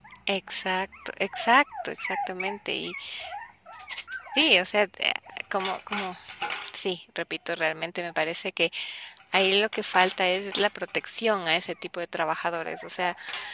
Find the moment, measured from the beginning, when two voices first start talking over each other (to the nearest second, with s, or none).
none